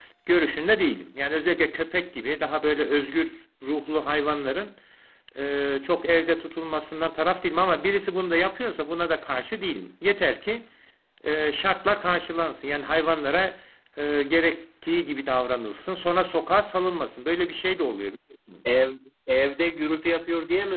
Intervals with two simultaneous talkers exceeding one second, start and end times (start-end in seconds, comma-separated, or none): none